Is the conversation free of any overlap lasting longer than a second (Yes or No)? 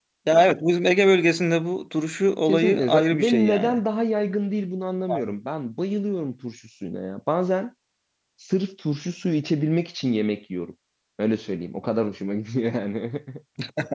No